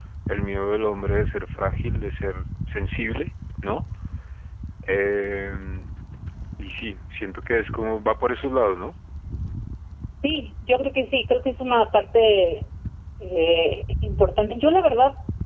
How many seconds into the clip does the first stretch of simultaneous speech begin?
none

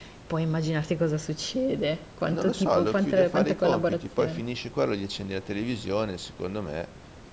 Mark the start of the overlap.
2.2 s

